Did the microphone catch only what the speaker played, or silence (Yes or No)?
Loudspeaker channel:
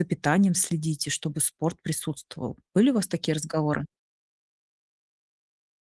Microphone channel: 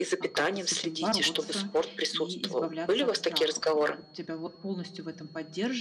No